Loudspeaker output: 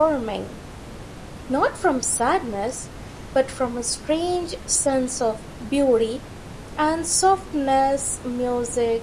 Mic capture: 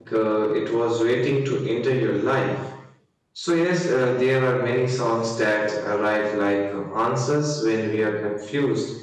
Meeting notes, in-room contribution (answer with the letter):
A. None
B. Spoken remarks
B